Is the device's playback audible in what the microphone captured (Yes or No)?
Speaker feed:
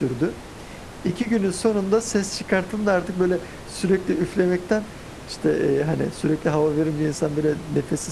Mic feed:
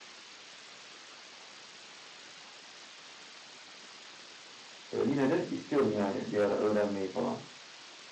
No